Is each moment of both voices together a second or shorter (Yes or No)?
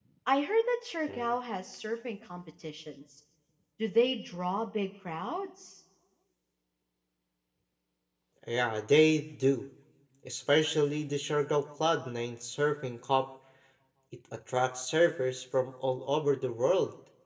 Yes